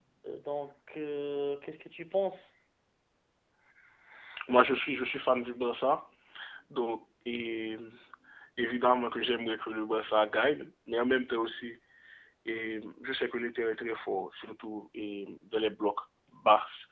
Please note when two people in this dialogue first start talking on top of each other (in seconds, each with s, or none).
none